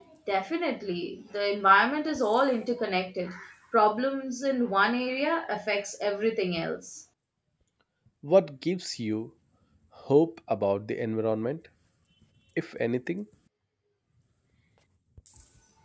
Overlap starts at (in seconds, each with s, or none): none